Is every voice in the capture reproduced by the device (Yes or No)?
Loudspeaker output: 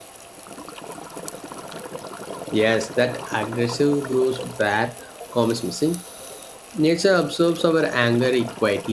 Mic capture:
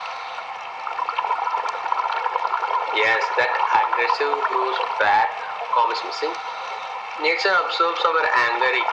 Yes